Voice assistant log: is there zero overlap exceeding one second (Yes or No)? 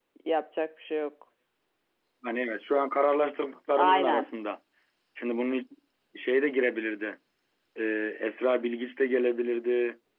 Yes